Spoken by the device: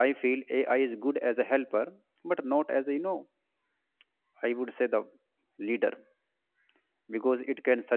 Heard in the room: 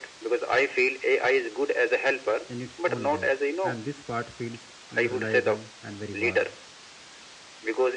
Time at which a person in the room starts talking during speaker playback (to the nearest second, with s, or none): 2 s